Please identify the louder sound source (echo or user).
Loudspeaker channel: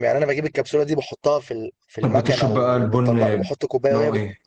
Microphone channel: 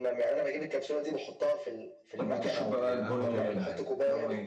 echo